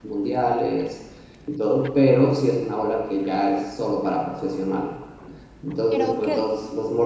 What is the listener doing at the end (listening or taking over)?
listening